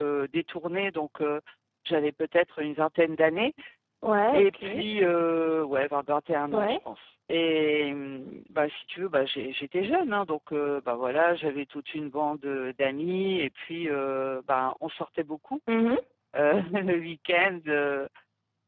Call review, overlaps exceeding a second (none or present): none